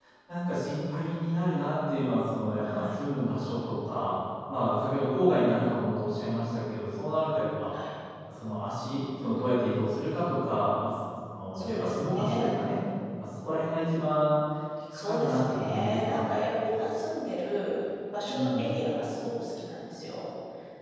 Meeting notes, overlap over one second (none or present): present